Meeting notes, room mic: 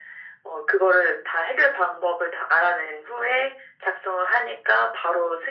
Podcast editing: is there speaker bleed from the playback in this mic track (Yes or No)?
Yes